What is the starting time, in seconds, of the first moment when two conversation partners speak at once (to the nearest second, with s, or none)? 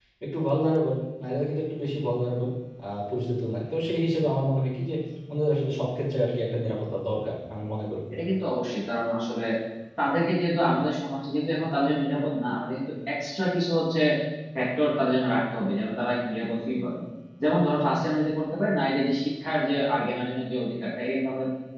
none